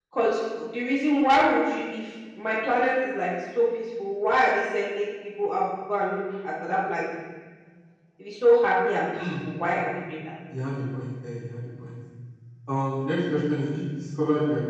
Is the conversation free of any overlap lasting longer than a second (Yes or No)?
Yes